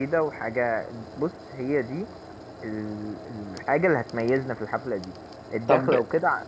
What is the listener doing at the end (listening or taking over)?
listening